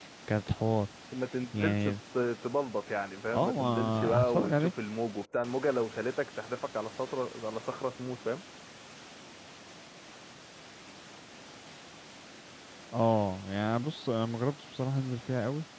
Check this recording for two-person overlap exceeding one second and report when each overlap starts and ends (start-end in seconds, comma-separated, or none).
3.3-4.7